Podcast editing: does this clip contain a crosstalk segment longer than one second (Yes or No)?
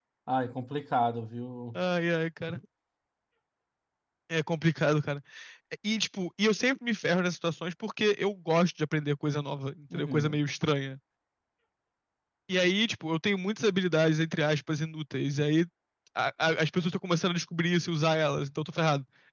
No